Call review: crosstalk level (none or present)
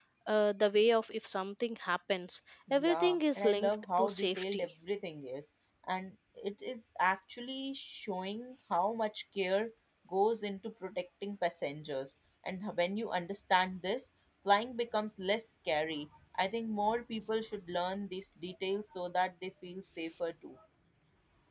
present